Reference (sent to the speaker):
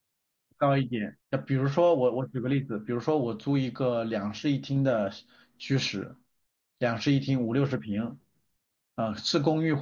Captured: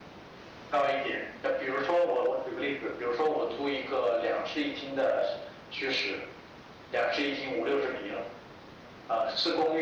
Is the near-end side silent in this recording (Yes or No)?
Yes